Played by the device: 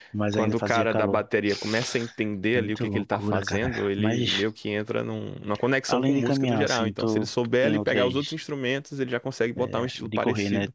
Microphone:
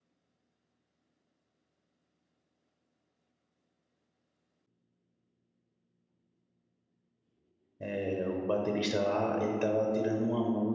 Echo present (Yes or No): No